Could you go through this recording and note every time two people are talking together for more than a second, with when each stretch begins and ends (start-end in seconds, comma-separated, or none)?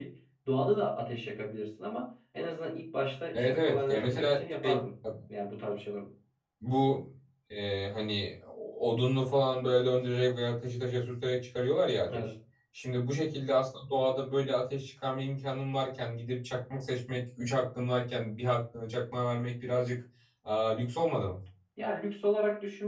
3.3-4.8